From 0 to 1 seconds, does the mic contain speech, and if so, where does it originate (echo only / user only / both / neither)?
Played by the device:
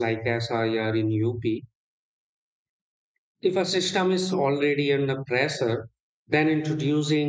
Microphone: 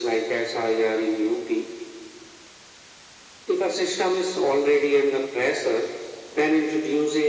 echo only